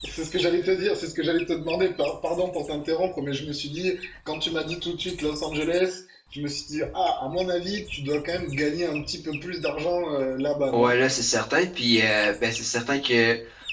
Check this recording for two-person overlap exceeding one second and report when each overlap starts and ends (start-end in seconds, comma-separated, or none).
none